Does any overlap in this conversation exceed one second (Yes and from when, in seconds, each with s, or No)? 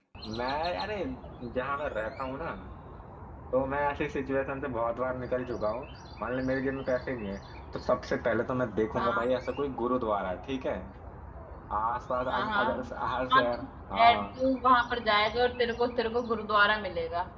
No